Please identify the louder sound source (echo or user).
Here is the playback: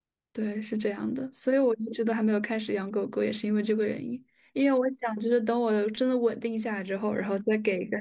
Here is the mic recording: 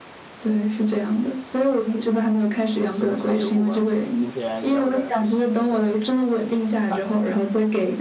echo